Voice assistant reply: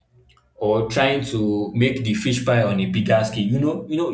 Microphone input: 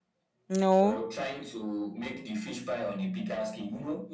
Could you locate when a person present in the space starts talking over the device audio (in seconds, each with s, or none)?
0.5 s